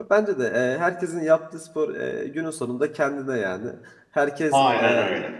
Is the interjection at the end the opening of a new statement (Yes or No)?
No